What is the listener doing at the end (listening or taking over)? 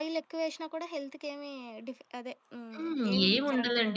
taking over